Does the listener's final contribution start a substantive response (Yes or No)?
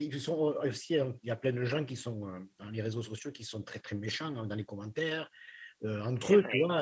No